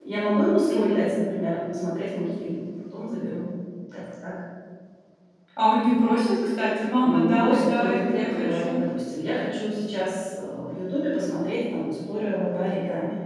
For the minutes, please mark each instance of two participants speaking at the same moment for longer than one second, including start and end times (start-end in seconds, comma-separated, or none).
7.0-8.8